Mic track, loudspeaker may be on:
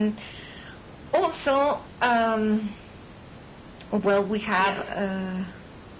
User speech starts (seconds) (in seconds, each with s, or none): 4.6 s